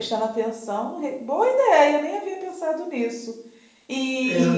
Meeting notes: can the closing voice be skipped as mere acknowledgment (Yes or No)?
Yes